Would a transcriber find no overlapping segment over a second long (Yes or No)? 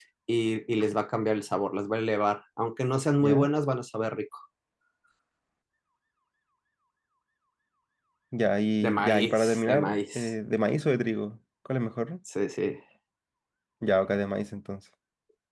No